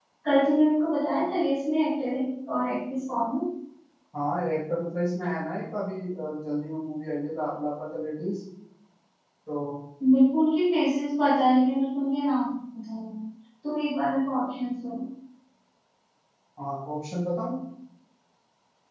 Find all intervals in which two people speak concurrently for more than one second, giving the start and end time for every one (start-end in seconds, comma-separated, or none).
none